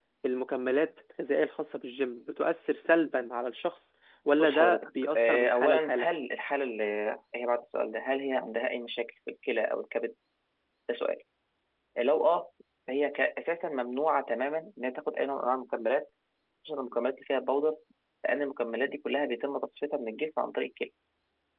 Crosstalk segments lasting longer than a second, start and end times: 4.4-6.1

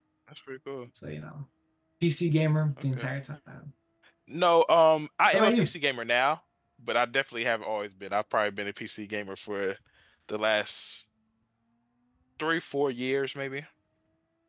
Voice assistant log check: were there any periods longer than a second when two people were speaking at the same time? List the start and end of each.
none

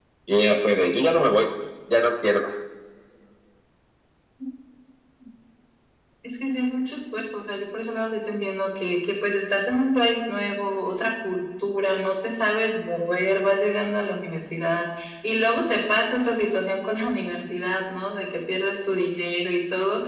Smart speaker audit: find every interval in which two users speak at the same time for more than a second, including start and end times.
none

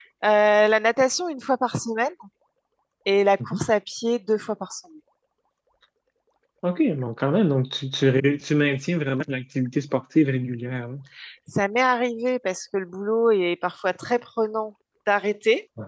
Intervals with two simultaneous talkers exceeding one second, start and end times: none

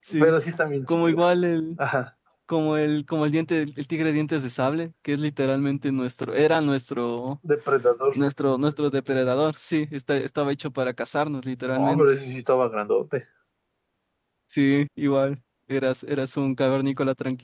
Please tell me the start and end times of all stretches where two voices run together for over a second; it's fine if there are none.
none

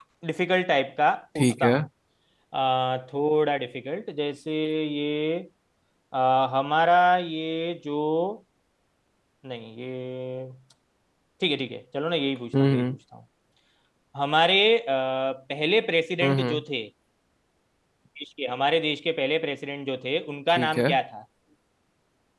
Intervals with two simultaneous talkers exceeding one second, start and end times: none

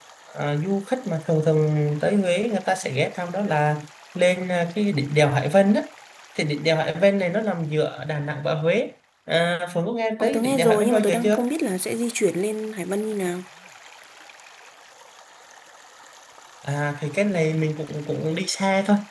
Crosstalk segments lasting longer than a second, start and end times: 10.2-11.4

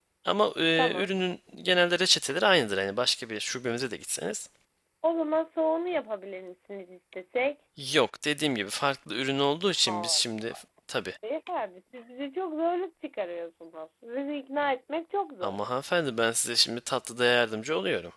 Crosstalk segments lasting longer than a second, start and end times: none

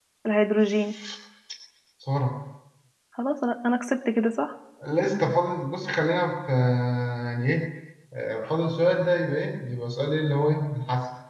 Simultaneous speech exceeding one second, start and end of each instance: none

